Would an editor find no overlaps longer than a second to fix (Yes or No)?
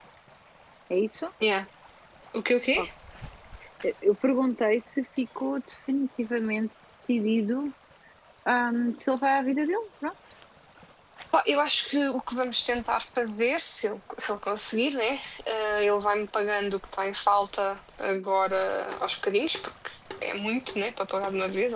Yes